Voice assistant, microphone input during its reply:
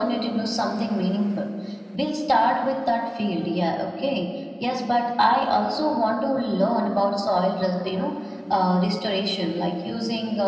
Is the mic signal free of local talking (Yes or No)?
Yes